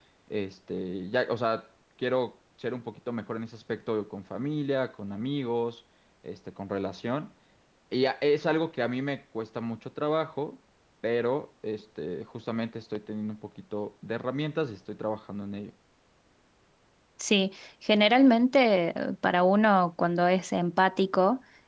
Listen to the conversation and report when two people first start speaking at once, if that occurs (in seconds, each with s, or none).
none